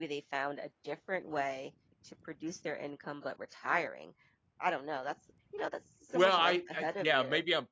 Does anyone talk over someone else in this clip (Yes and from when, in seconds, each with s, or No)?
Yes, from 6.1 s